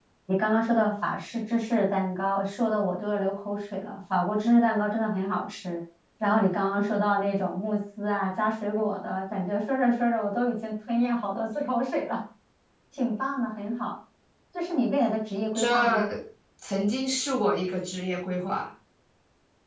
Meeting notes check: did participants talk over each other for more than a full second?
No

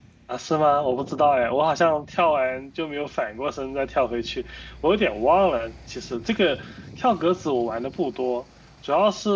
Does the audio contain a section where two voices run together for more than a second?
No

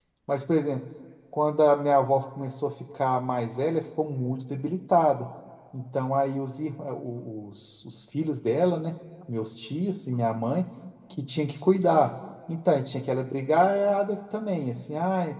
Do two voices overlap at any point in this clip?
No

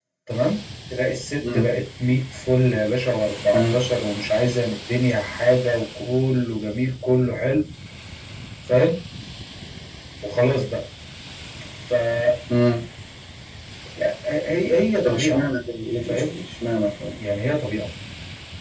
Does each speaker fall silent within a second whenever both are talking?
Yes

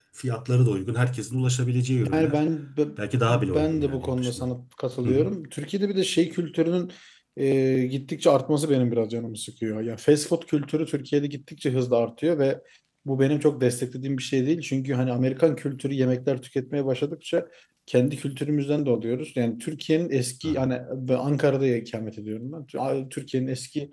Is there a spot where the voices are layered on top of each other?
Yes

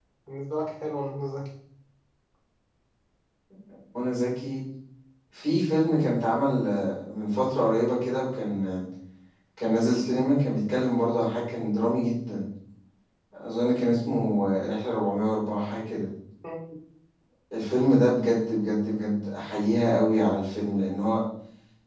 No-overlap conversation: Yes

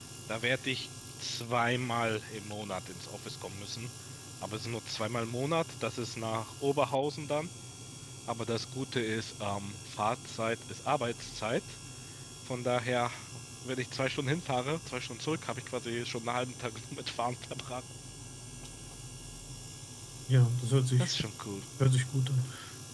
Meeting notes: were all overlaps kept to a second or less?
Yes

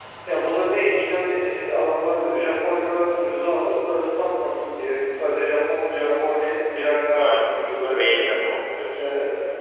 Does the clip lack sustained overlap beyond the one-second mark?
Yes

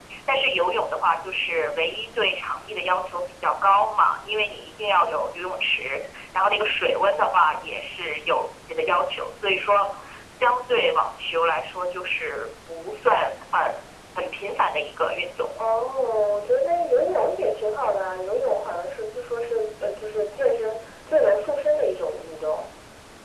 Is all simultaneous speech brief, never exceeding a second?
Yes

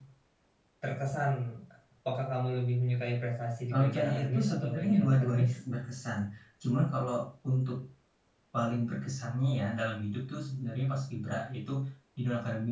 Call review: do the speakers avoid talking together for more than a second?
No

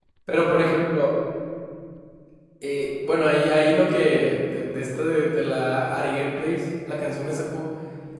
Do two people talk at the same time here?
No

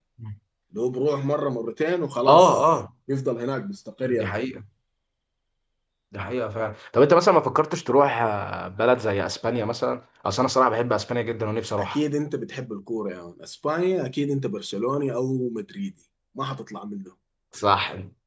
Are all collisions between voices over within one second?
Yes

